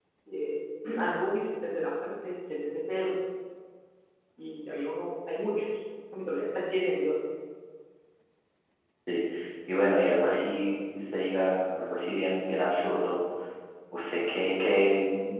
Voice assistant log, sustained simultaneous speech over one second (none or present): none